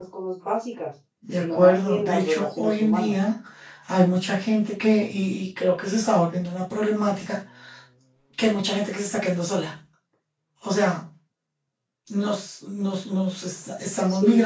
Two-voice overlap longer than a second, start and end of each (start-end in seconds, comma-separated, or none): 1.3-3.2